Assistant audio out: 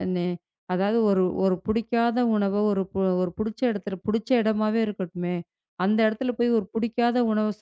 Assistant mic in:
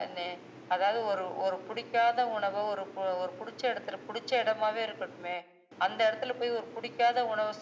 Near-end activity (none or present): none